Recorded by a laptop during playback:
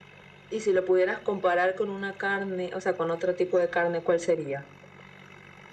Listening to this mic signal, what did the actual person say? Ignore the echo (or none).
none